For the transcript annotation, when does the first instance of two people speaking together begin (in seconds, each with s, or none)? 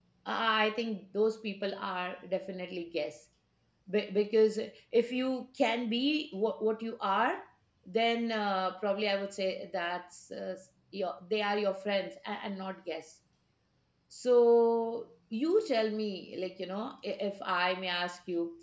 none